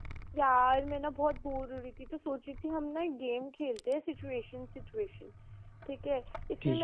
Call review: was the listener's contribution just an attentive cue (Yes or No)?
Yes